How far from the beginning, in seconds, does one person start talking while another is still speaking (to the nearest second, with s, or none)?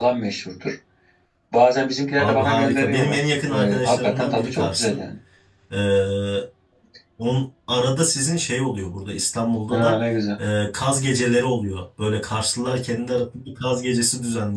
2 s